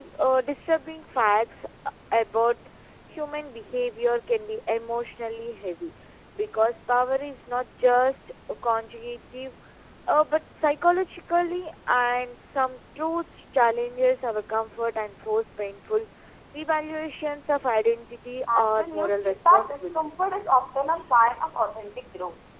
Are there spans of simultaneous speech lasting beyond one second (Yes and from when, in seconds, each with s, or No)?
Yes, from 18.5 s